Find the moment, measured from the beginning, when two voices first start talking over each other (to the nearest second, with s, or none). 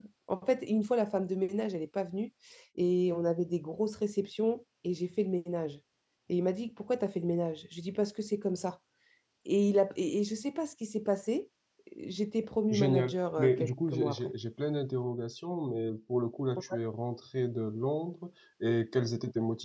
13 s